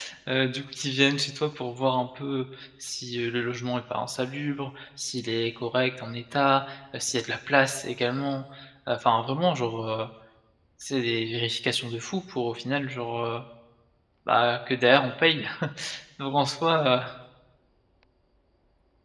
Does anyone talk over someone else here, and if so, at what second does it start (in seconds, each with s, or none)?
none